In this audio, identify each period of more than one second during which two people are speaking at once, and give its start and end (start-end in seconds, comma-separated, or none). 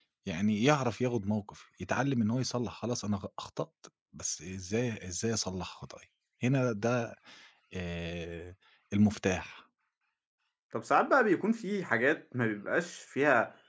none